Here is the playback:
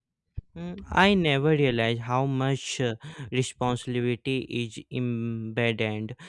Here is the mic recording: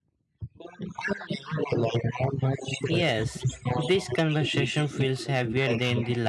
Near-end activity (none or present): present